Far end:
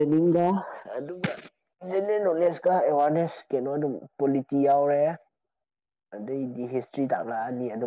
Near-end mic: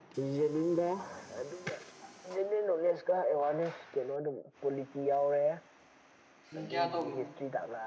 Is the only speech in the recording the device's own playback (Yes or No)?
No